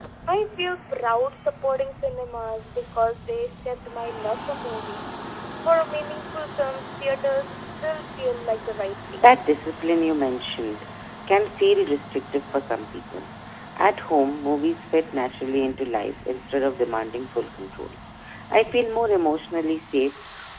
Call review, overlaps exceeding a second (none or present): none